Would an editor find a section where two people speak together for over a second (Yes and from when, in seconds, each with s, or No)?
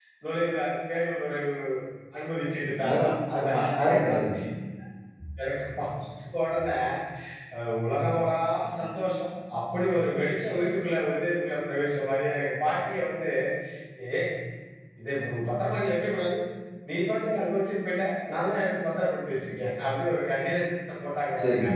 Yes, from 2.9 s